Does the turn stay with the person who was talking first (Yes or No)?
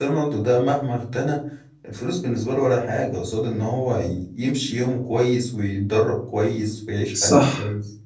No